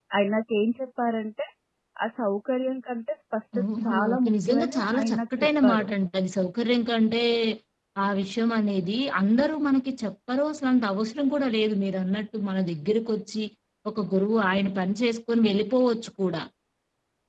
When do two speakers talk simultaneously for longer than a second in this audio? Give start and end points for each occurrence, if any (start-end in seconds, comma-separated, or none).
3.6-5.9